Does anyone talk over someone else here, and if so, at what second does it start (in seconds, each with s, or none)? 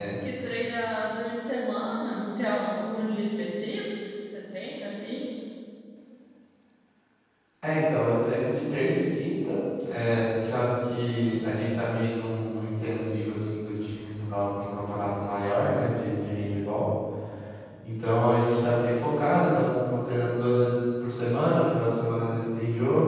none